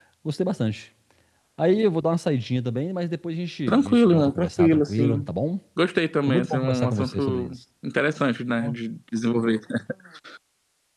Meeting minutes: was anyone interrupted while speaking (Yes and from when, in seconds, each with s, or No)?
Yes, from 3.7 s